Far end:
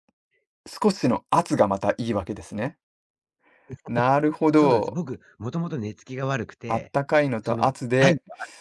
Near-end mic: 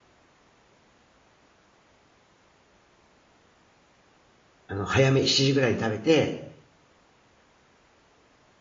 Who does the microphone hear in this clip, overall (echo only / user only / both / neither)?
user only